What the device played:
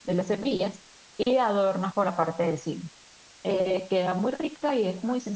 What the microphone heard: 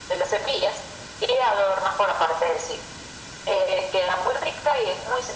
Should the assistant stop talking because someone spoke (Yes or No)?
No